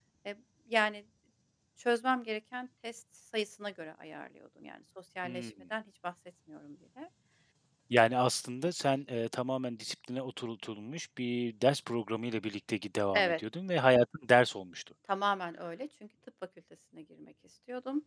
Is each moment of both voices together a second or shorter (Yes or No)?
Yes